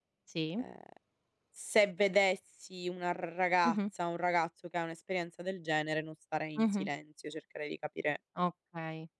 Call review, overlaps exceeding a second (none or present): none